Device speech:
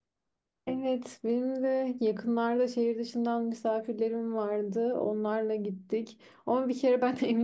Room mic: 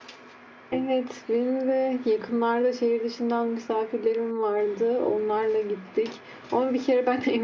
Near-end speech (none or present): none